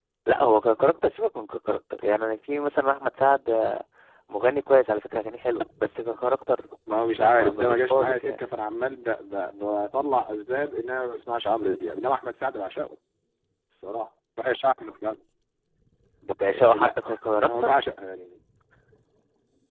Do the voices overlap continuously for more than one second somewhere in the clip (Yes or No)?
Yes